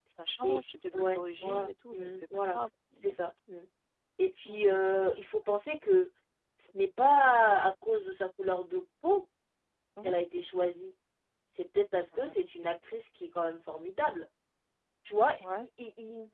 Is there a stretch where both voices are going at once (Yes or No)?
Yes